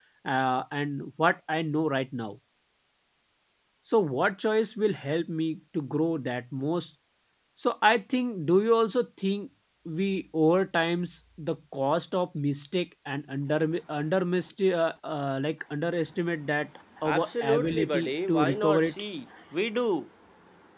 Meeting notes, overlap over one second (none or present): present